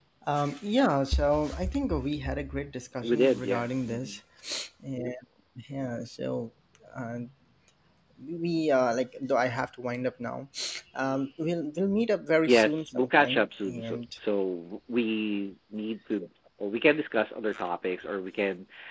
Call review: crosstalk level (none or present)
present